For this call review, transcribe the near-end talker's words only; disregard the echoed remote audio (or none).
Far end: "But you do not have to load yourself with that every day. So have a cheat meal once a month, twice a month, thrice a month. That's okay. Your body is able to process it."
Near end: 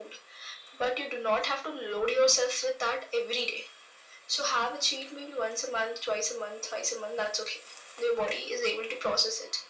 none